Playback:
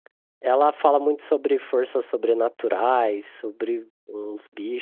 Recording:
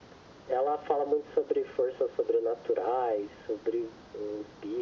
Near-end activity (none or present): none